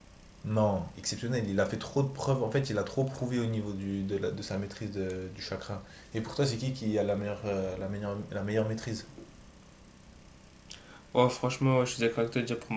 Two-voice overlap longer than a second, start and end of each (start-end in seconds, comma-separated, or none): none